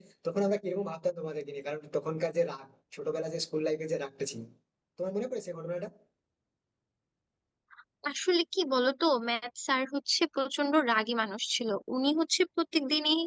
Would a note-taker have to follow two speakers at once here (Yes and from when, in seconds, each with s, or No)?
No